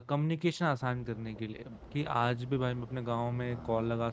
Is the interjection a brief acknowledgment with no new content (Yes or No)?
Yes